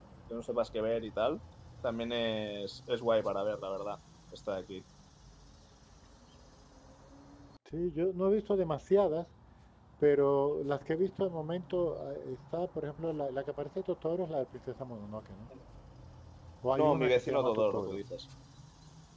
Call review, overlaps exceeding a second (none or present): present